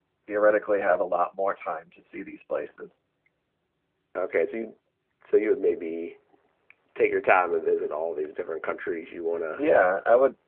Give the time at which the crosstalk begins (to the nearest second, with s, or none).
none